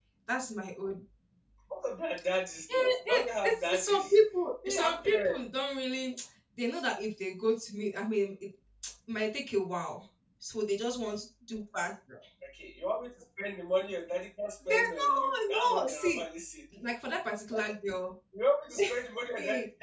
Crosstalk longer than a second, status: present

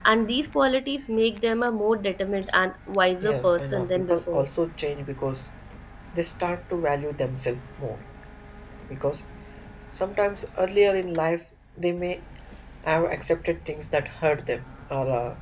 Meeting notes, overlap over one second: present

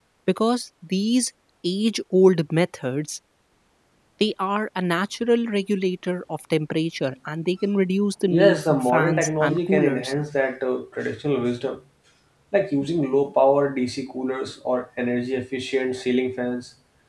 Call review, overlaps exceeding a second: present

